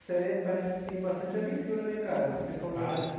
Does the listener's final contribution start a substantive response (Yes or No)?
No